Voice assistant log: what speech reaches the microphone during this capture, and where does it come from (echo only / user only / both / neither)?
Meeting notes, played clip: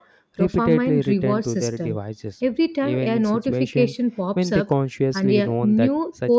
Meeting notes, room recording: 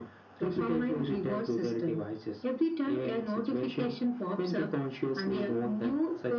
echo only